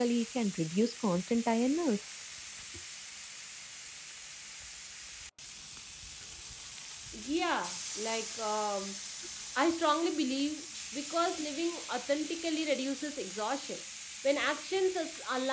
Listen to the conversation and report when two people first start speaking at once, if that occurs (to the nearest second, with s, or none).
none